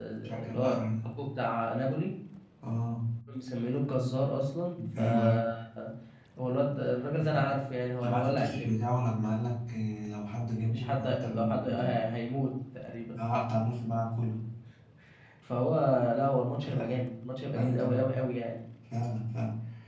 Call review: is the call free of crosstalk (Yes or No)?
No